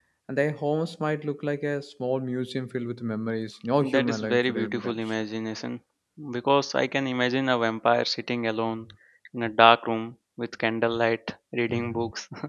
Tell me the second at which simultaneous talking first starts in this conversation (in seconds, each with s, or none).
3.9 s